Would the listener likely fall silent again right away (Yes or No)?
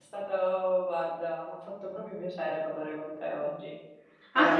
No